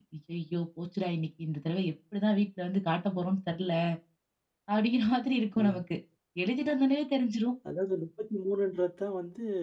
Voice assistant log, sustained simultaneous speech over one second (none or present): none